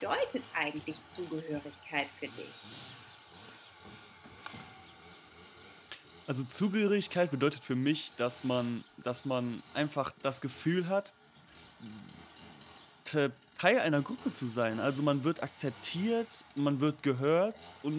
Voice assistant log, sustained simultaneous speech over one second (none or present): none